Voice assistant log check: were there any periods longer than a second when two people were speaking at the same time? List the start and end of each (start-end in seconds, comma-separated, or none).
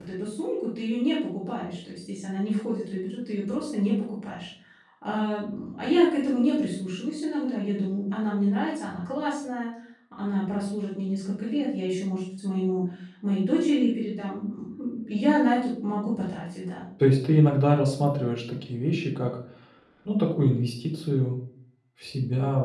none